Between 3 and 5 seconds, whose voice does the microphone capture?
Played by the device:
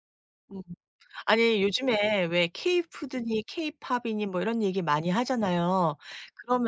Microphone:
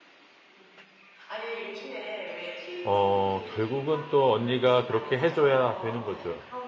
both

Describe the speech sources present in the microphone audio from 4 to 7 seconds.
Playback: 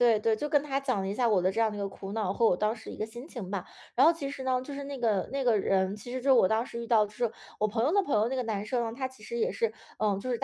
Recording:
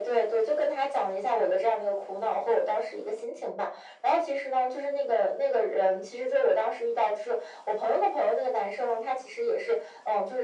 echo only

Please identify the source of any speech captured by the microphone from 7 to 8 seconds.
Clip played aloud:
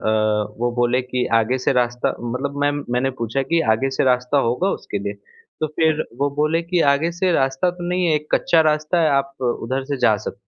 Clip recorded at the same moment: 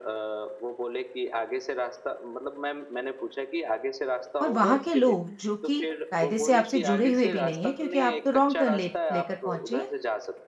both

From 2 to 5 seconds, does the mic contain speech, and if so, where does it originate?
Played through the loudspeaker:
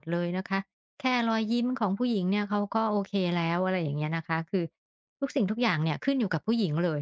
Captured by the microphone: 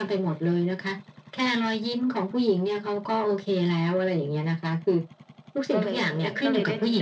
echo only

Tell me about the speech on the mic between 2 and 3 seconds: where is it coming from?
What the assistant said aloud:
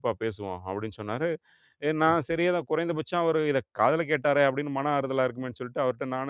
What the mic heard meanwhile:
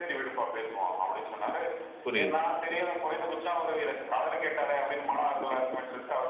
both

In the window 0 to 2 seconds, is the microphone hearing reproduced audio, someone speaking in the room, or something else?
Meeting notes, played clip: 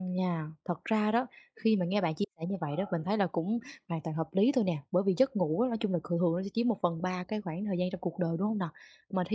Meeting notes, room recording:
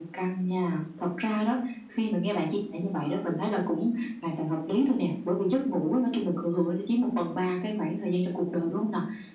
echo only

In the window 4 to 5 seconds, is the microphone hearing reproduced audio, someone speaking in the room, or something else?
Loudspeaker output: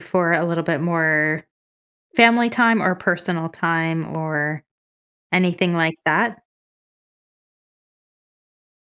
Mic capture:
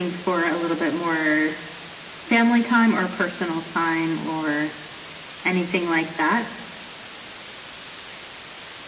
echo only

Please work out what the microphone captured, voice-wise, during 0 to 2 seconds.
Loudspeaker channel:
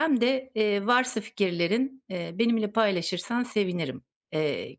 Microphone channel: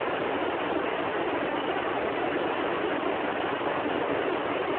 neither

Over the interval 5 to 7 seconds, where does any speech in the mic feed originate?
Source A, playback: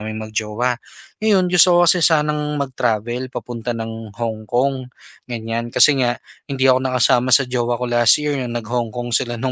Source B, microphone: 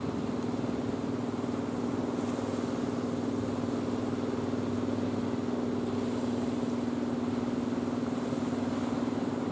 neither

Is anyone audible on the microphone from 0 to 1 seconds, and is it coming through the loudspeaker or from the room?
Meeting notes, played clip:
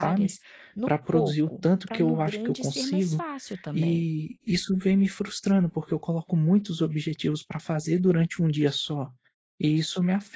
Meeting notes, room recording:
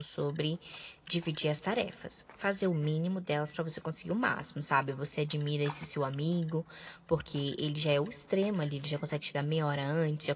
user only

